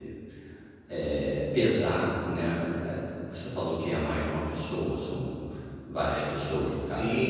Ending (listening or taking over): taking over